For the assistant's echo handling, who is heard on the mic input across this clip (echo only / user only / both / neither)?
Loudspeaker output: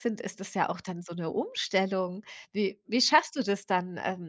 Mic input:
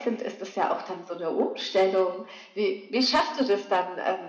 echo only